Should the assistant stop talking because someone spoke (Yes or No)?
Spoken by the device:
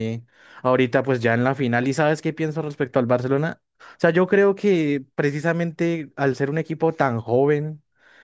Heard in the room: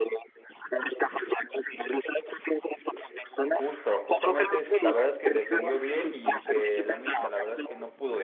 Yes